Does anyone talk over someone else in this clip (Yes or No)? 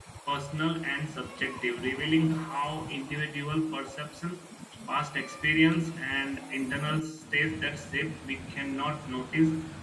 No